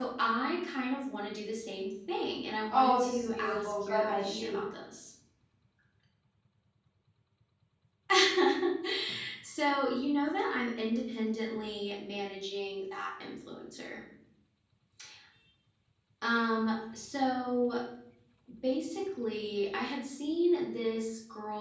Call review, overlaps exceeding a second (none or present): present